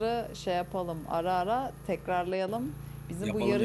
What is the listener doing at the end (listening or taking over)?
listening